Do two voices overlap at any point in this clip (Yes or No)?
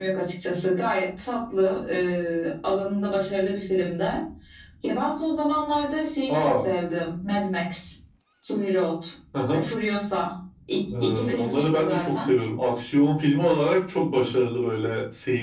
Yes